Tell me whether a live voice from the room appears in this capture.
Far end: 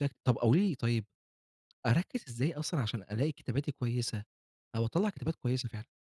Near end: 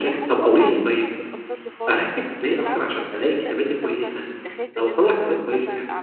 Yes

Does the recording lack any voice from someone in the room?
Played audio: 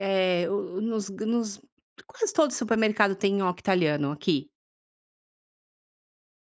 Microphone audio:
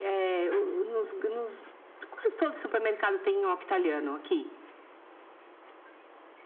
Yes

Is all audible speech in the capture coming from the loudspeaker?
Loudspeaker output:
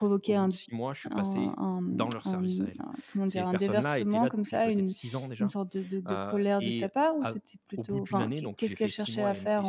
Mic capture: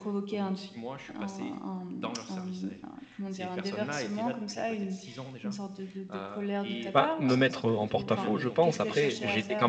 No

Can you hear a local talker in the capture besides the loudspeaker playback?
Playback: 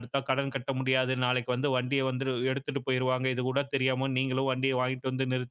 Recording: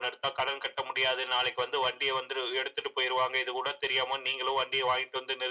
No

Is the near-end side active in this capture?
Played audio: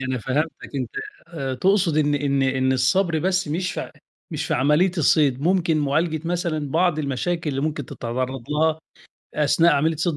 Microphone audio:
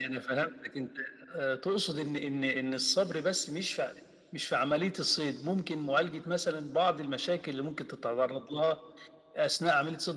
No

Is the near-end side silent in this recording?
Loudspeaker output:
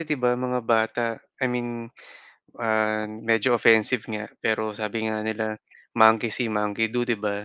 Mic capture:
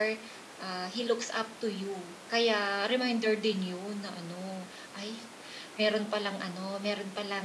No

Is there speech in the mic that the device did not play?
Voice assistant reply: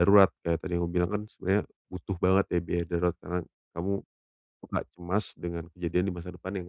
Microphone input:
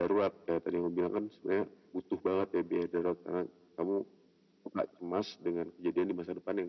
No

